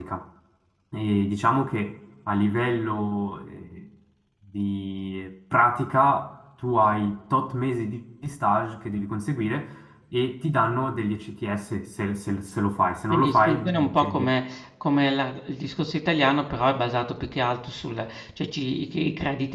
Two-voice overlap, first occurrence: 13 s

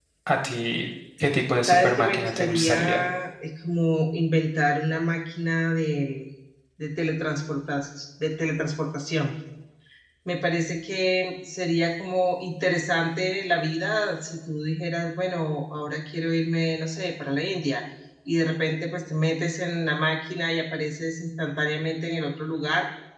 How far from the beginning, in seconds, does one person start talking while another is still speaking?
2 s

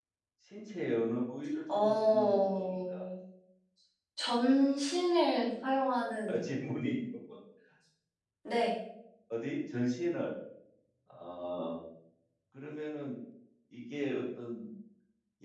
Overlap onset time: 2 s

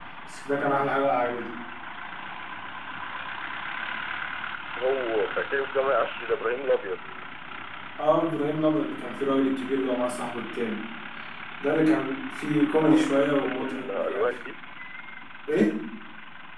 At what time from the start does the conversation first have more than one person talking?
13 s

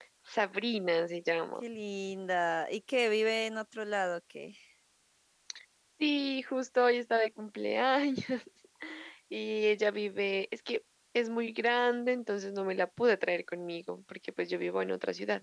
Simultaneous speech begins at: none

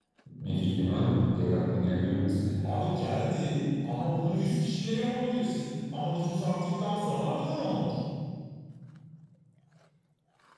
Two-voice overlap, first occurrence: none

